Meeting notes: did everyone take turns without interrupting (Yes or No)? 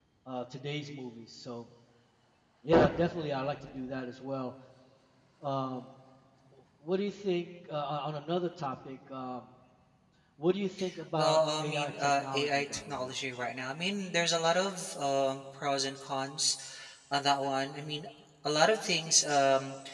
No